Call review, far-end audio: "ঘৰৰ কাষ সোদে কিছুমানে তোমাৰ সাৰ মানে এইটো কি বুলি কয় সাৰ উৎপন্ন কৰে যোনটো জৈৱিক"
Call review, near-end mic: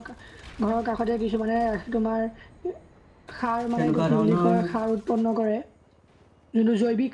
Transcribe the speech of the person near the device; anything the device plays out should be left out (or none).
তেনেকুৱা ধৰণৰ